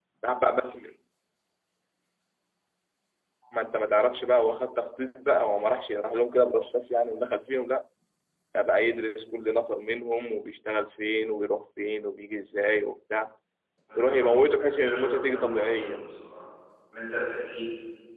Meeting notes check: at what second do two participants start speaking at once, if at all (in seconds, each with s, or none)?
13.9 s